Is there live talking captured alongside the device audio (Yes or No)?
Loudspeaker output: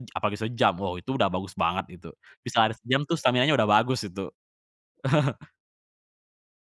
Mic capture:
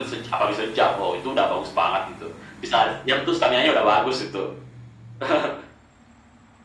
No